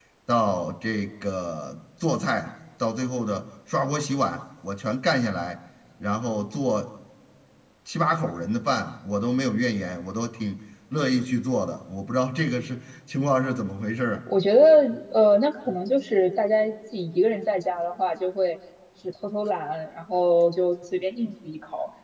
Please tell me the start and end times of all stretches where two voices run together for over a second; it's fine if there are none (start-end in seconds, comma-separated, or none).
none